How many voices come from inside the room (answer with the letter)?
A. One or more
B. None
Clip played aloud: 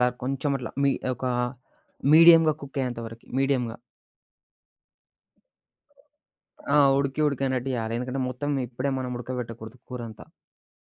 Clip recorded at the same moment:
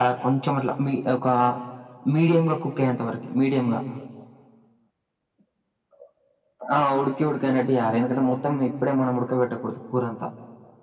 B